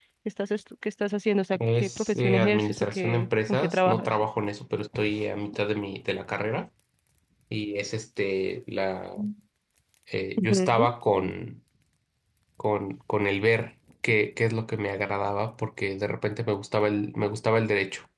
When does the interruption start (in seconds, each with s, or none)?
1.6 s